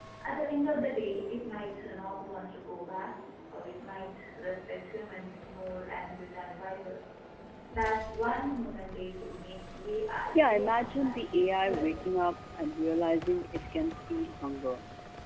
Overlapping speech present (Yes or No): Yes